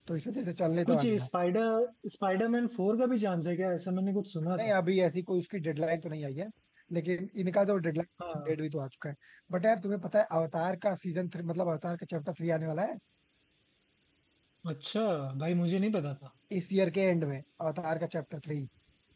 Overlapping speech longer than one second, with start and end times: none

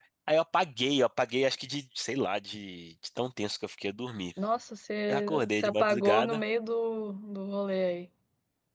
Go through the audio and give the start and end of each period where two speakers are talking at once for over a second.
5.1-6.4

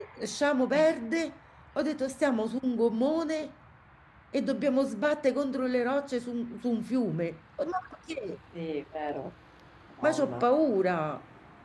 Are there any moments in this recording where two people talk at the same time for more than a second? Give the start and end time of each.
none

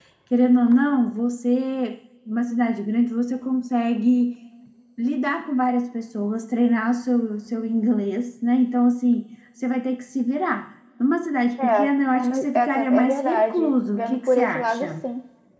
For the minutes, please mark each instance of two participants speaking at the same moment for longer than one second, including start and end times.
12.2-15.0

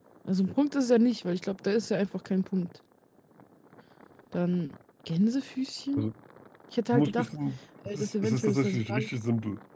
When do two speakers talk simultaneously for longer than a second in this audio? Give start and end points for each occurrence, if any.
7.8-9.1

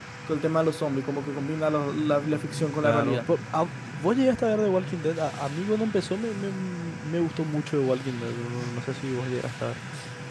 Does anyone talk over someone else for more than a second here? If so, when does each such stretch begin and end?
none

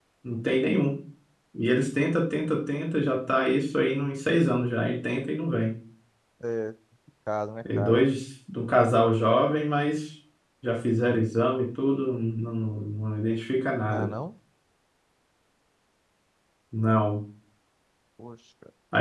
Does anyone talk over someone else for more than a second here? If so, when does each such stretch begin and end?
none

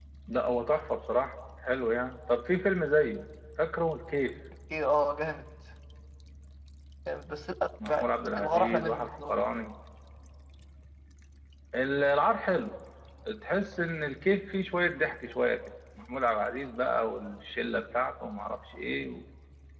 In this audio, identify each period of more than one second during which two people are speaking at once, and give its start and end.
7.8-9.4

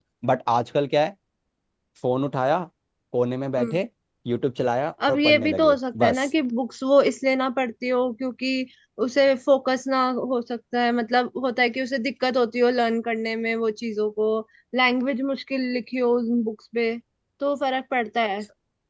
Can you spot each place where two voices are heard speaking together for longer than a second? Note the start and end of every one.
5.1-6.3

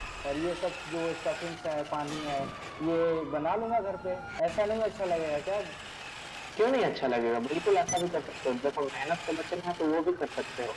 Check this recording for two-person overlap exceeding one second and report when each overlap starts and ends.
none

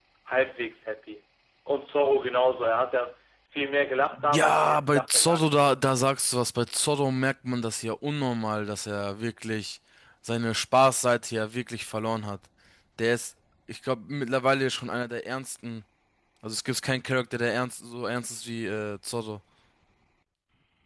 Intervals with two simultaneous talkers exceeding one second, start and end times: 4.3-5.7

